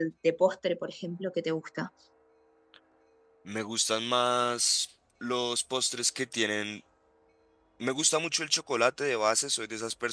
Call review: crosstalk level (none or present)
none